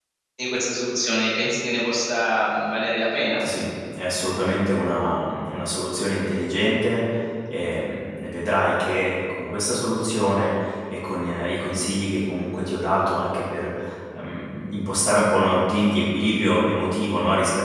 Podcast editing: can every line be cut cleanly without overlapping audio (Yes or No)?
Yes